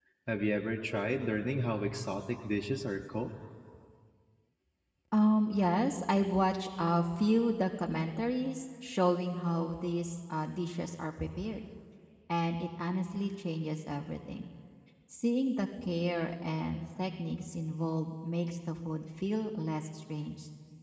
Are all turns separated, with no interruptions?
Yes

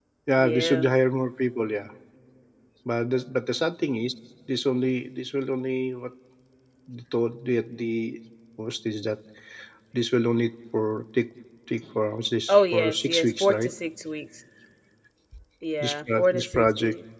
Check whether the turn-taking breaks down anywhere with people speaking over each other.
Yes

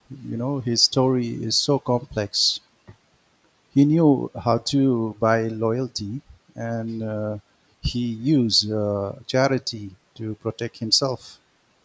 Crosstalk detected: No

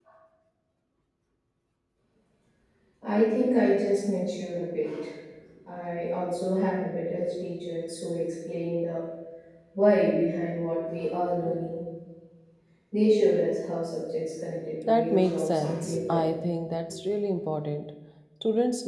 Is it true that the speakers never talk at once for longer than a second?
No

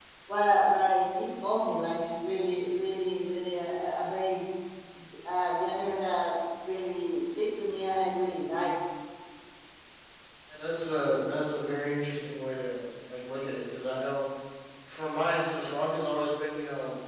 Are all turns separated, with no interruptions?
Yes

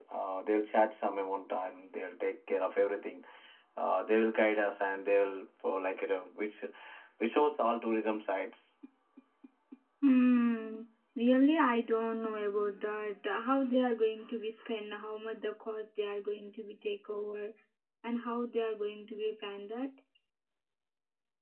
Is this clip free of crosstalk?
Yes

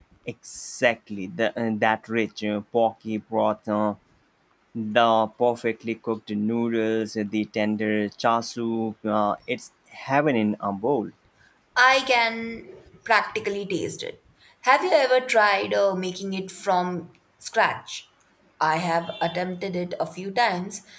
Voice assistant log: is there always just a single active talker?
Yes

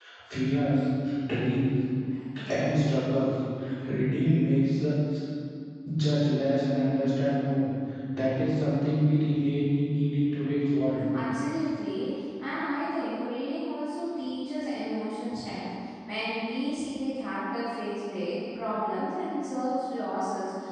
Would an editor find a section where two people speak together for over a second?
No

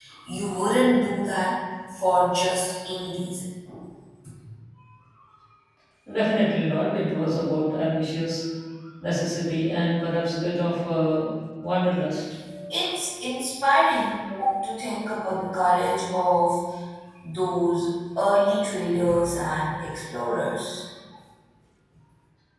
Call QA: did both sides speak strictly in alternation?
Yes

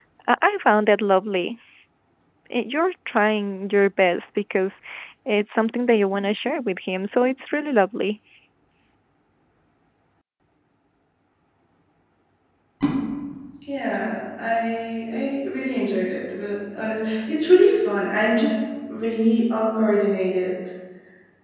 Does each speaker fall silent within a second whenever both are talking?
Yes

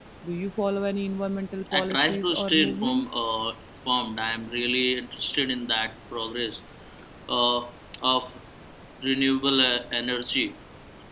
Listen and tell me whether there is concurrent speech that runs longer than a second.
Yes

